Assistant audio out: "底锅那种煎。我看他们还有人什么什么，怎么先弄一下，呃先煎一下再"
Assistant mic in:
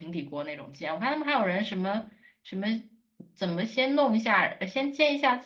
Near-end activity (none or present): none